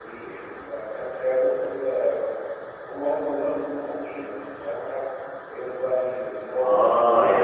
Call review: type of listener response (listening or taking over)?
taking over